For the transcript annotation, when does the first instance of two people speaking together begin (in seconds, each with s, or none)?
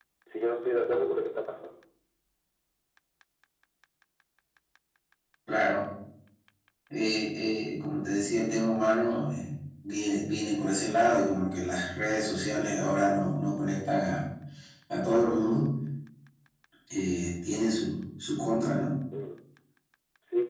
none